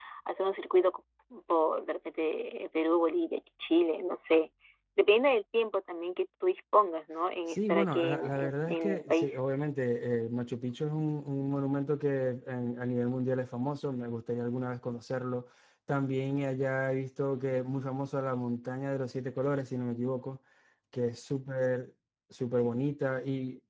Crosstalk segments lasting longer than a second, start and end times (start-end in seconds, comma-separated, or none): 7.5-9.4